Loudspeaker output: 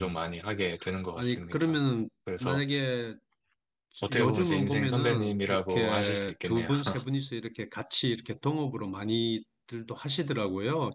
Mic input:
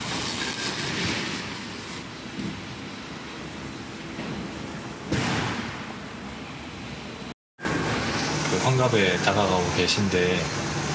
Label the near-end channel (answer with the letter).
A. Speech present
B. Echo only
A